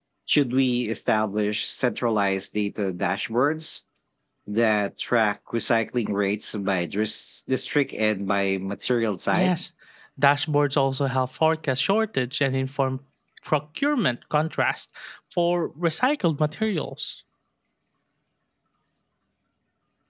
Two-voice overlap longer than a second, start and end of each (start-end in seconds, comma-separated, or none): none